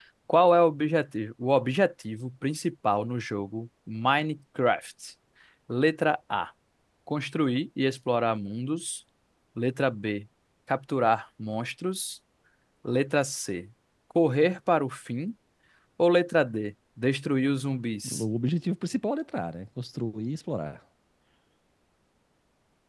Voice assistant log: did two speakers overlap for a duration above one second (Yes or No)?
No